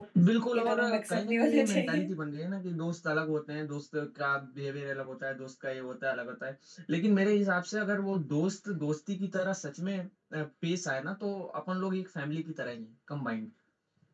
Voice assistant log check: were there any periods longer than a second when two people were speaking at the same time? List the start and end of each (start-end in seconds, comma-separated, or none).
0.5-2.0